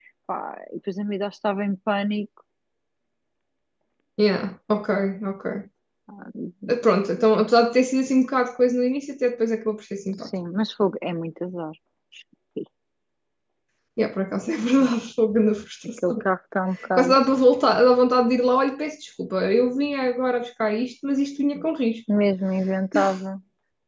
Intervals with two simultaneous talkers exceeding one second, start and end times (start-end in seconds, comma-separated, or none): none